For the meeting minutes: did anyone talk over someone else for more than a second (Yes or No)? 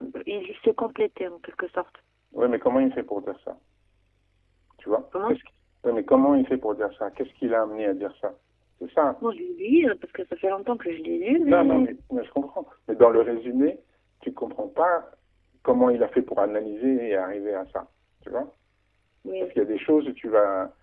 No